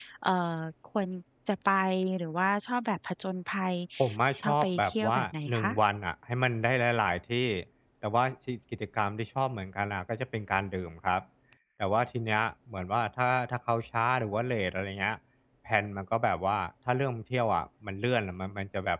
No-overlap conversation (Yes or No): No